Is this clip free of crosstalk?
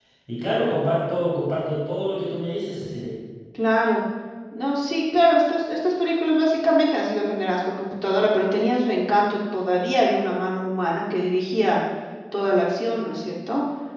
Yes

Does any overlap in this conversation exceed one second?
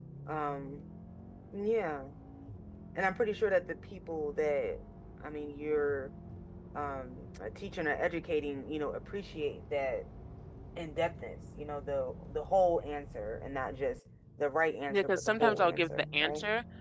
Yes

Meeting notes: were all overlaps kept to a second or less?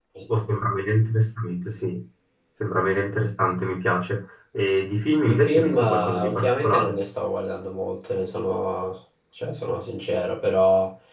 No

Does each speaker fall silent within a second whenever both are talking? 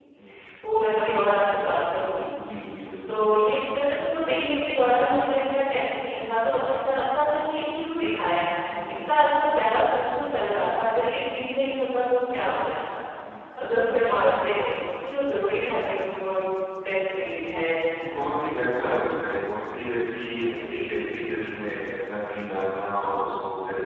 Yes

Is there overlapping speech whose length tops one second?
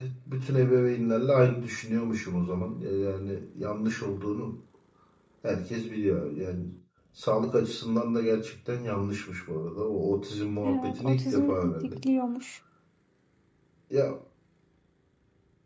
Yes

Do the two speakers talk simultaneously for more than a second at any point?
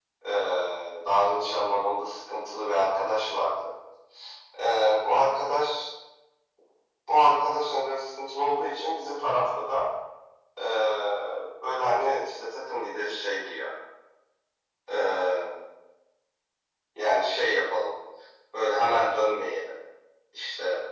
No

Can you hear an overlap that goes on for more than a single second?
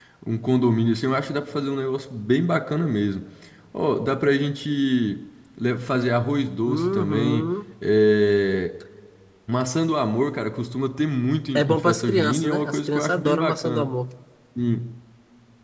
Yes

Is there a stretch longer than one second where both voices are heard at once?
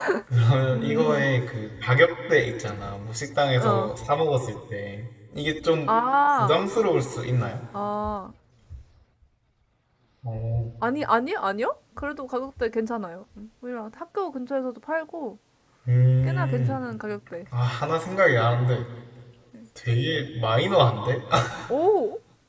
No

